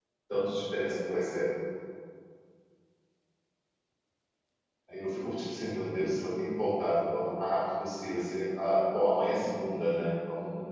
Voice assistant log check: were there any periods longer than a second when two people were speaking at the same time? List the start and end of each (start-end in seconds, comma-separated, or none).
none